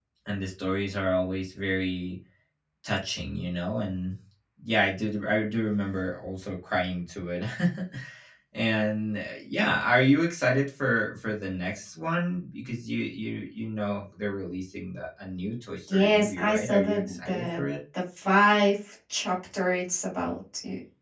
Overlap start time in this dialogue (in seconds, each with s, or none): 15.9 s